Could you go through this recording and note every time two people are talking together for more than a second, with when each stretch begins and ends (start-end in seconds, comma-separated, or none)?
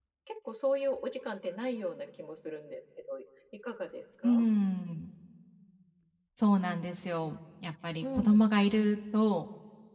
none